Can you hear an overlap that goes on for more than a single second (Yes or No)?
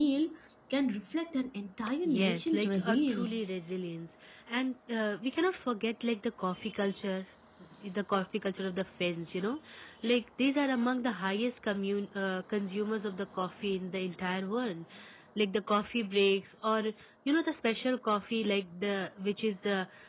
Yes